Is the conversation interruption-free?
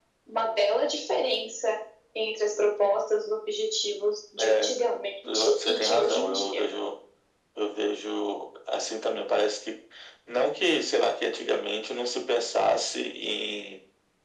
No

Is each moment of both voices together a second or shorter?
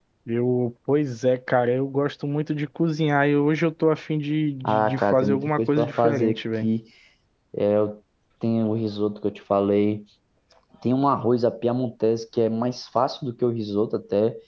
No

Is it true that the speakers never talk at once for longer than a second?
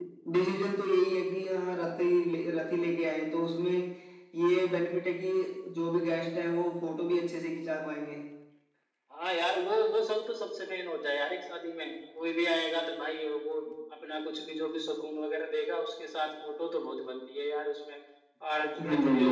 Yes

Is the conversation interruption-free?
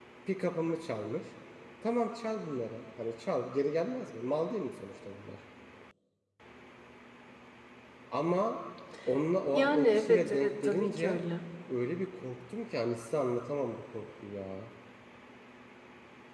No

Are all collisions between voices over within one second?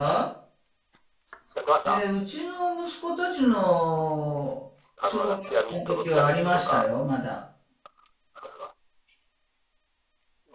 No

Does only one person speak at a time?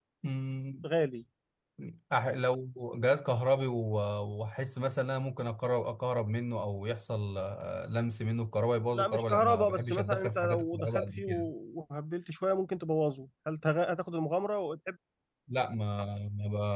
No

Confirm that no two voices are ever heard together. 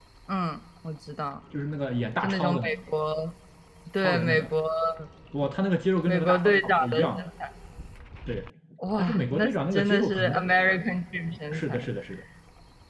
No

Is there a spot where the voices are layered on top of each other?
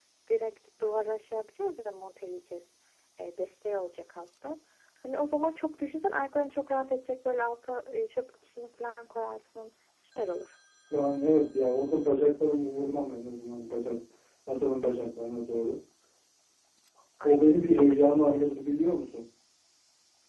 Yes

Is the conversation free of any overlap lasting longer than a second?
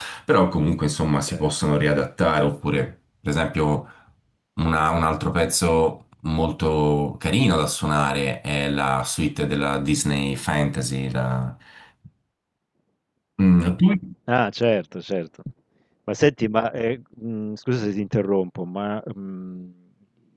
Yes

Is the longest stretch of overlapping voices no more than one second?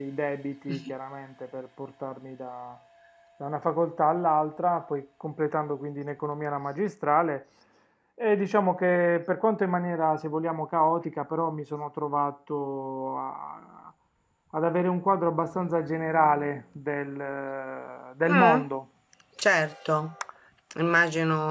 Yes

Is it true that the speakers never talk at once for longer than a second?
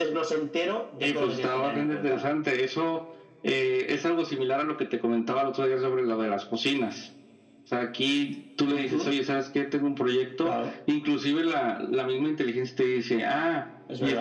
No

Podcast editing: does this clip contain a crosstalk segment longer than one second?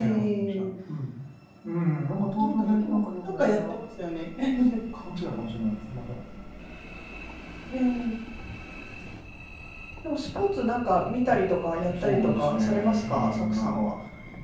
Yes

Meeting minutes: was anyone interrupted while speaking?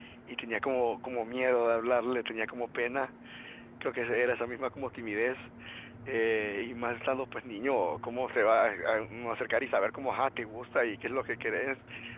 No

